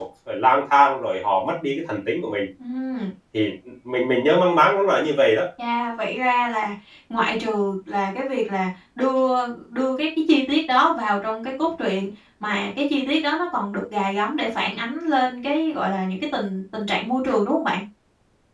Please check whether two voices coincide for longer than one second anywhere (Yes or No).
No